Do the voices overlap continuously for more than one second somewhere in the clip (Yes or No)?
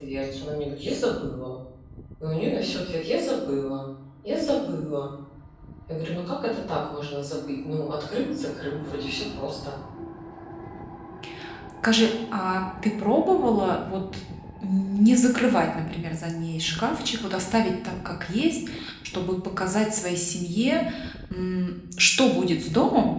No